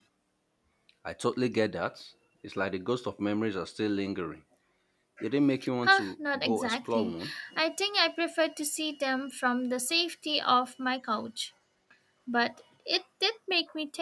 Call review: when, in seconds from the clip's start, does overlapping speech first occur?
5.8 s

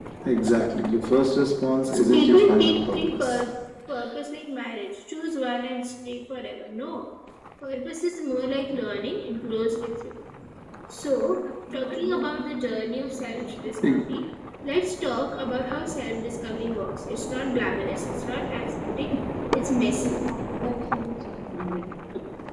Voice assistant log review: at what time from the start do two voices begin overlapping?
1.9 s

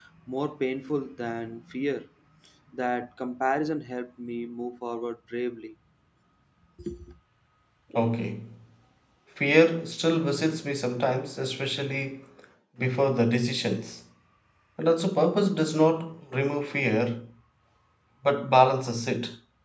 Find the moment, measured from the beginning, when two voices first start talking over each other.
none

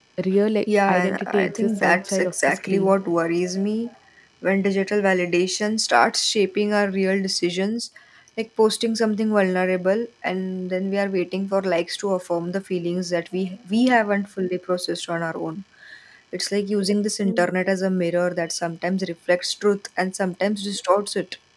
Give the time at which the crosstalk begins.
0.9 s

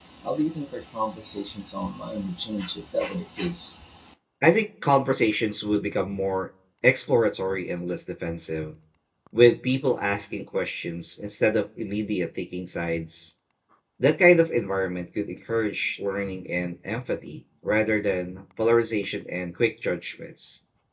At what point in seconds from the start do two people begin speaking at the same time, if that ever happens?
none

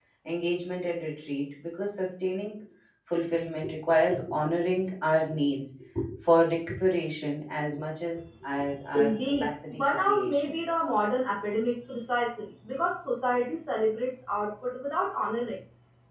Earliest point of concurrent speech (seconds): 8.9 s

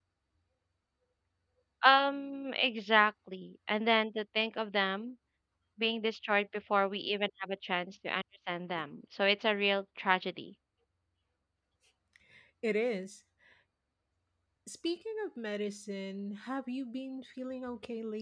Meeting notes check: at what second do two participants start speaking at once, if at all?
none

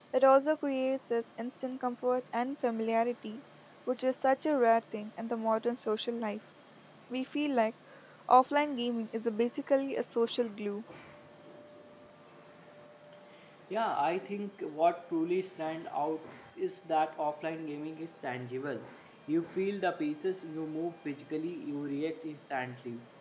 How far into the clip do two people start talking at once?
none

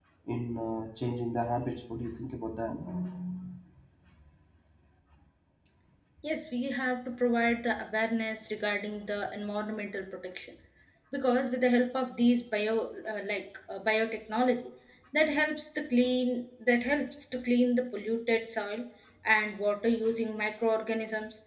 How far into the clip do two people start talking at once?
none

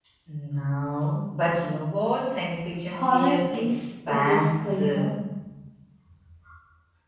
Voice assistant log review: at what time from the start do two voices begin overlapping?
2.9 s

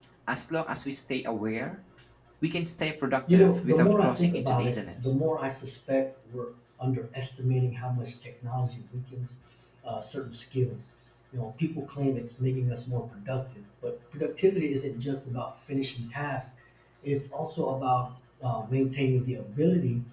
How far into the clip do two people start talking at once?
3.3 s

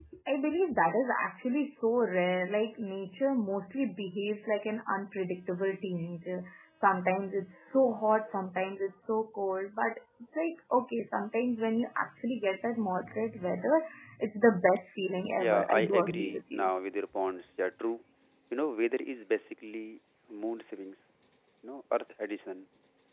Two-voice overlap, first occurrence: 15.4 s

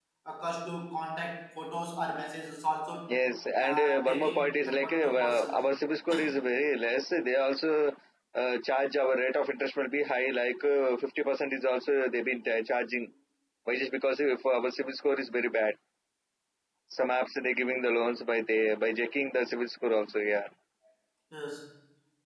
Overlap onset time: 3.6 s

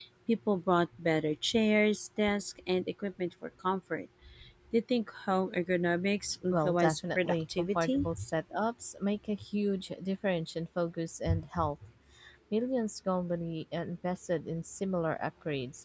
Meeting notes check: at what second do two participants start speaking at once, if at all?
6.5 s

